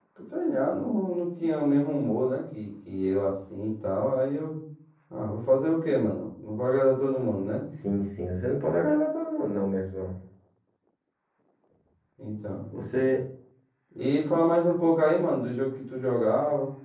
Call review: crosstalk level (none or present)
none